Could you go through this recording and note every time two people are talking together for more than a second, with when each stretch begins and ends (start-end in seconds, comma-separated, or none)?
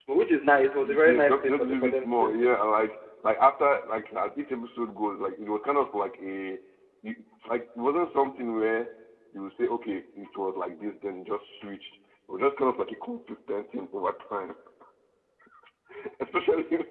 0.8-2.3